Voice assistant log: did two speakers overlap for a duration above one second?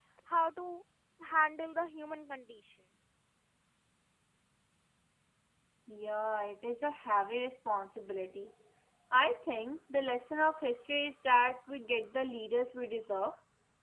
No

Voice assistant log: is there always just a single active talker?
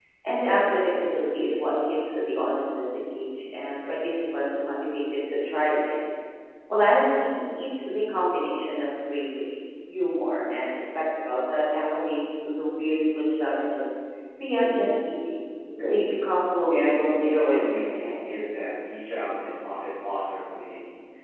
No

